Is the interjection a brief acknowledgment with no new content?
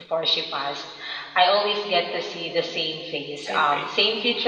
Yes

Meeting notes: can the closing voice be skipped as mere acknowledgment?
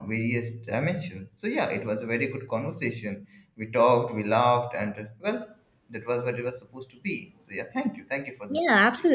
No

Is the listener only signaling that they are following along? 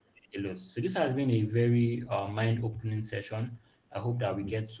Yes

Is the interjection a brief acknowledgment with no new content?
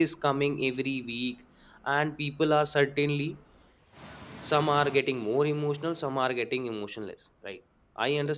Yes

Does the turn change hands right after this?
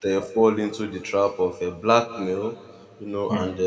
No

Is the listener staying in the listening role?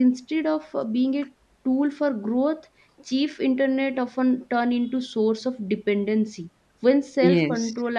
Yes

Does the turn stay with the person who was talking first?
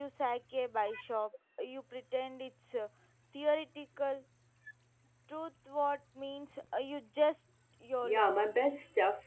No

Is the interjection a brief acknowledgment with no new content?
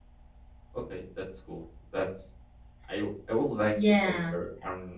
Yes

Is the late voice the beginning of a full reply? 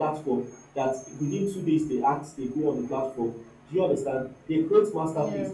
No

